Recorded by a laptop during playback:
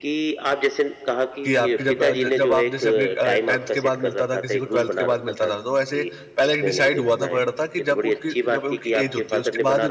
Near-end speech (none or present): present